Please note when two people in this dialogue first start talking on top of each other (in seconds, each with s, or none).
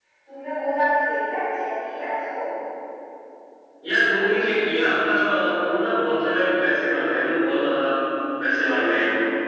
none